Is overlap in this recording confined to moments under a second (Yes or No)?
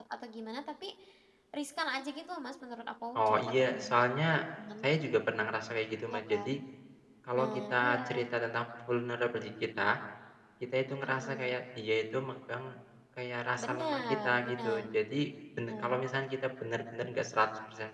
No